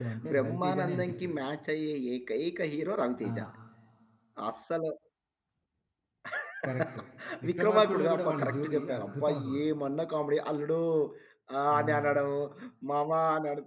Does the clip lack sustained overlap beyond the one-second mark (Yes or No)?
No